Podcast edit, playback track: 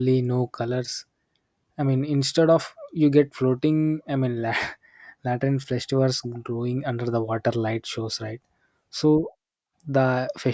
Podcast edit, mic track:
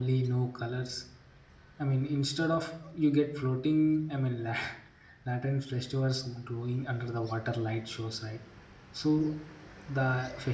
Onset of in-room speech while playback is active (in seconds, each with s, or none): none